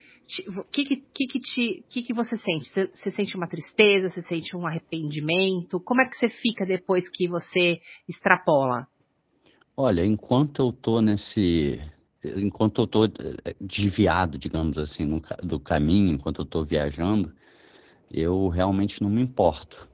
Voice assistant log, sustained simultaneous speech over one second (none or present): none